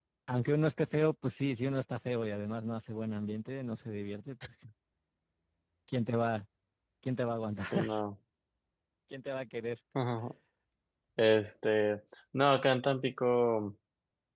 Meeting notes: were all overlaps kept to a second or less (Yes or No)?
Yes